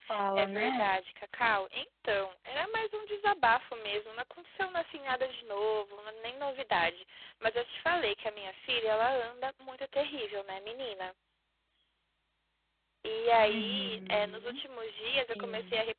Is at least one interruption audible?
Yes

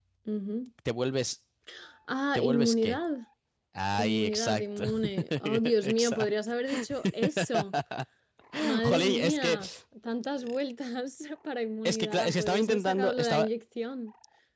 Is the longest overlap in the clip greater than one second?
Yes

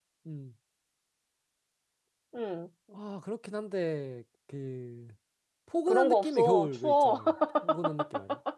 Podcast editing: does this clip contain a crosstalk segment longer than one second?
Yes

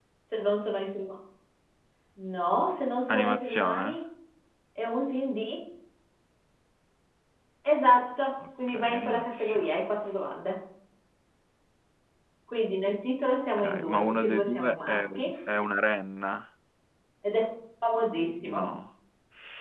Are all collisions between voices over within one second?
No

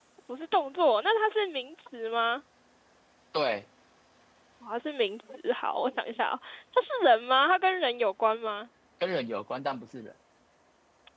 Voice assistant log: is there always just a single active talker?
Yes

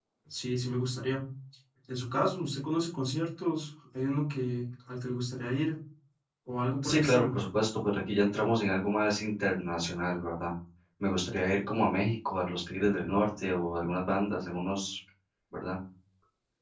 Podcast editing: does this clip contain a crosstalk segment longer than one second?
No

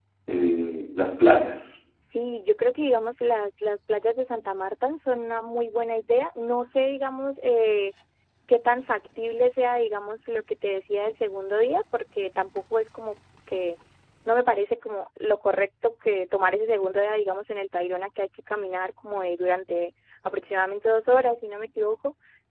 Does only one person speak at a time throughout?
Yes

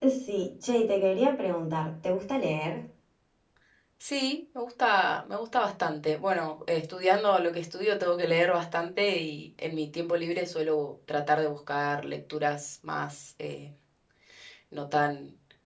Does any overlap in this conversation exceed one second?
No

